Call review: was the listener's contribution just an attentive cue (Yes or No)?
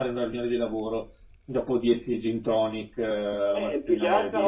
No